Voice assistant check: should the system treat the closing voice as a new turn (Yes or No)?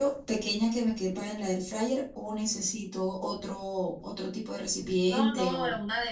Yes